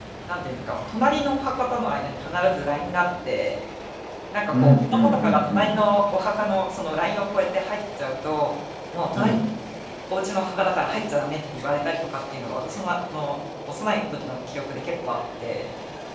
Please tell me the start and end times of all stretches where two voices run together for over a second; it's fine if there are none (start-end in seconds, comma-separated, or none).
4.5-5.8